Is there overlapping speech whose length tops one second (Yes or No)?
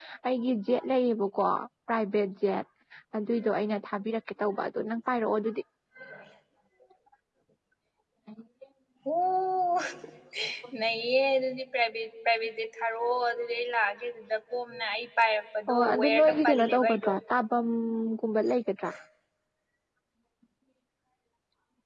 Yes